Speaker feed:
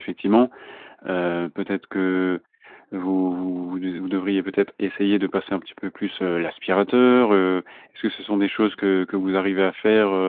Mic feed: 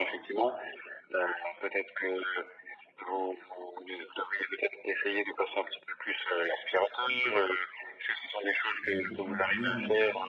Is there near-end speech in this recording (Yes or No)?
Yes